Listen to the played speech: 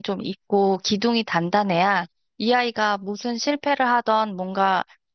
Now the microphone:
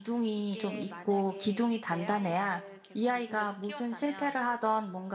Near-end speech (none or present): present